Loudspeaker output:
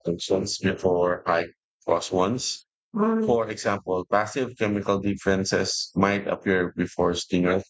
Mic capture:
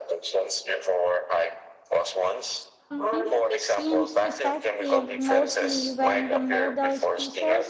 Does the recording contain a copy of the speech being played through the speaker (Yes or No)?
Yes